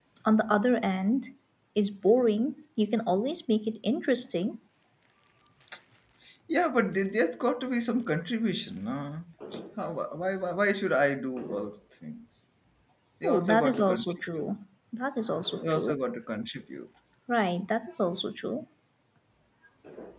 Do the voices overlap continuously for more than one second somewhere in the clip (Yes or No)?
Yes